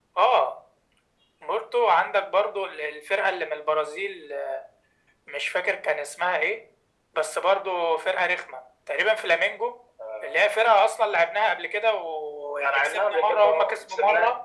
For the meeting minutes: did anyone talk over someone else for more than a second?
Yes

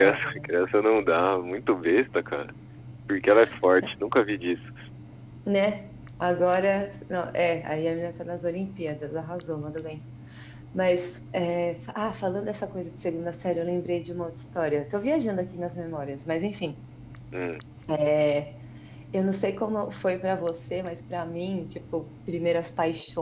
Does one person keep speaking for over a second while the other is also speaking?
No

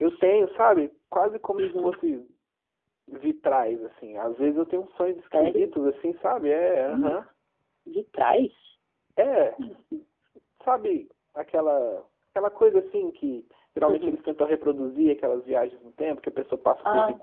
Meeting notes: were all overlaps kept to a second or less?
Yes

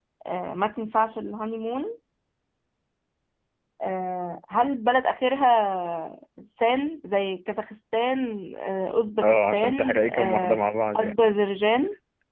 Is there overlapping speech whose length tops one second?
Yes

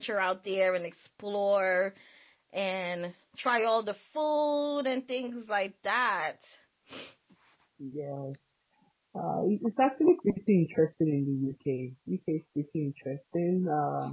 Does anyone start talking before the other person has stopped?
No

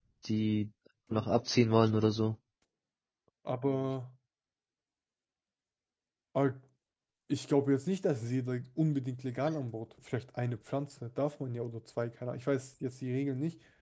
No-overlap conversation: Yes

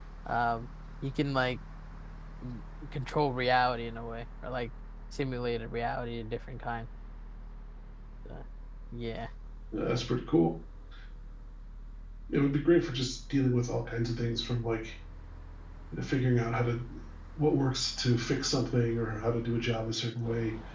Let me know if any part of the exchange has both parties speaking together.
No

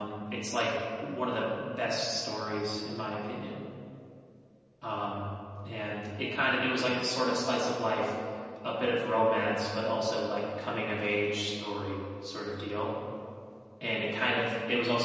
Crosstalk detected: No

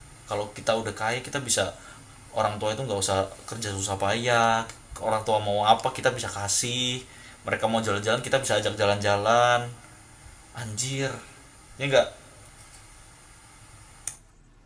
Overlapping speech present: No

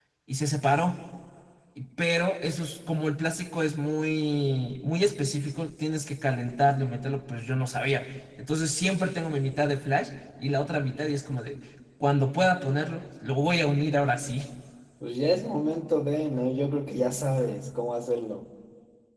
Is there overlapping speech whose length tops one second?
No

